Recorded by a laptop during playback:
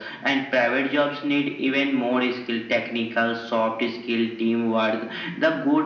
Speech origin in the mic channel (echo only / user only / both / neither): echo only